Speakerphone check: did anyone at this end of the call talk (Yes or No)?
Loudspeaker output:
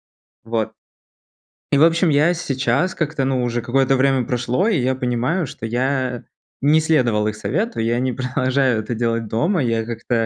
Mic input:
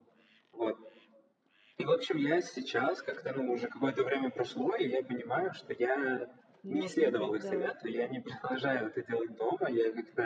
Yes